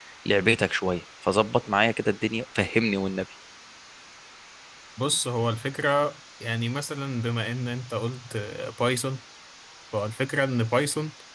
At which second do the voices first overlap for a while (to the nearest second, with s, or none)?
none